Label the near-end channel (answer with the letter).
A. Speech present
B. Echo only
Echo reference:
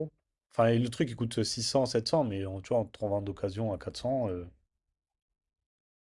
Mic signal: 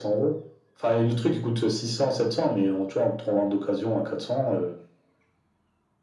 B